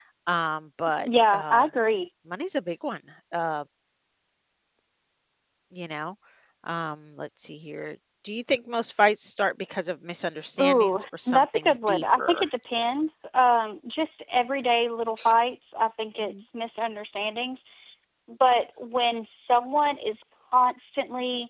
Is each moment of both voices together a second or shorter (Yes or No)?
No